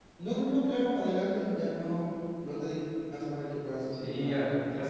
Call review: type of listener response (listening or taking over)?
taking over